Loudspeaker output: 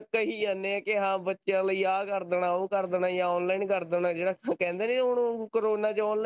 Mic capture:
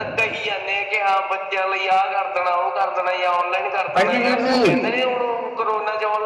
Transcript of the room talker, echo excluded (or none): ਹਾਂਜੀ ਵੀਰ ਜੀ?